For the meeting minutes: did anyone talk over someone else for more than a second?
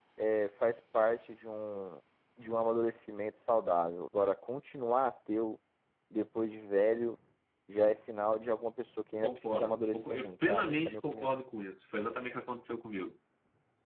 Yes, from 9.2 s

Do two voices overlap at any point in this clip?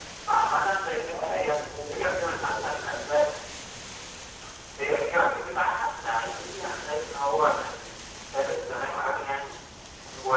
Yes, from 1.1 s

